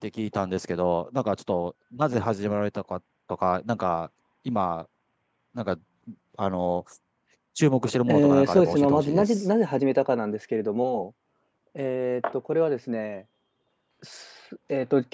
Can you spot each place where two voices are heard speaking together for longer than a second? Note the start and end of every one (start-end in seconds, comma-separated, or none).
8.1-9.4